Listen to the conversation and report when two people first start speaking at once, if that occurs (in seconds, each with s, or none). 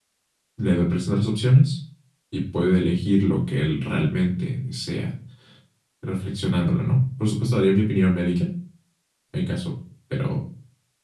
none